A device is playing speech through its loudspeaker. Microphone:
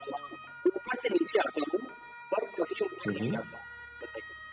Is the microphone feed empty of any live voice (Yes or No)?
No